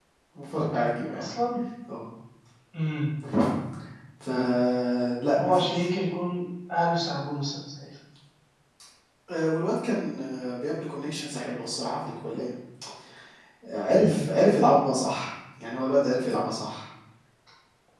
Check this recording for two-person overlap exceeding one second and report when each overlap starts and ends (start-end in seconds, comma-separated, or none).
none